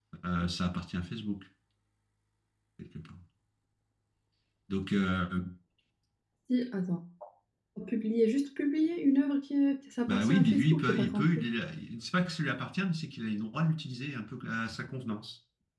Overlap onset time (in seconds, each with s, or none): 10.1 s